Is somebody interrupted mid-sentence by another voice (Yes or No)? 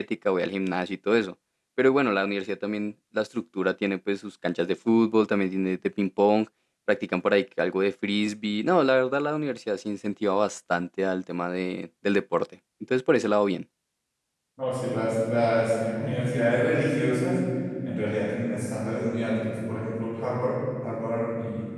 No